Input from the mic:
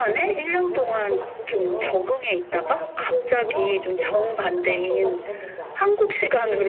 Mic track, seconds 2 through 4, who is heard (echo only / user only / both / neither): both